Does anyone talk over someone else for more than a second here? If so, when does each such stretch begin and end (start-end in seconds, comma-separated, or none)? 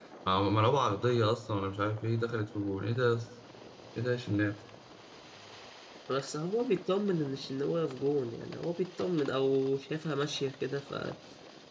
none